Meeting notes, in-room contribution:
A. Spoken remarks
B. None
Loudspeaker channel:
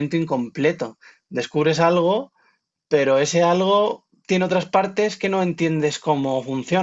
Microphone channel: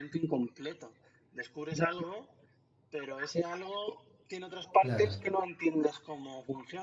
A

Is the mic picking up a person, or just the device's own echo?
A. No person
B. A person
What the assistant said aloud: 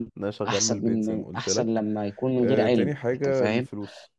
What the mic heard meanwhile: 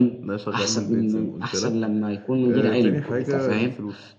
B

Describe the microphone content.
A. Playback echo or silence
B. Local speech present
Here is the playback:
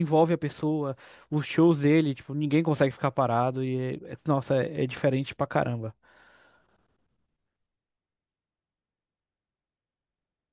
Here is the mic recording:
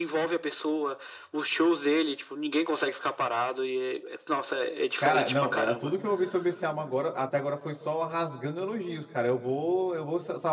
B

